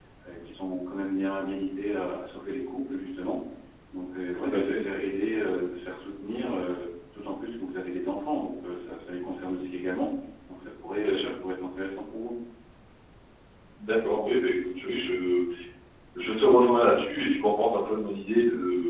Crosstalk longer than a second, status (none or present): none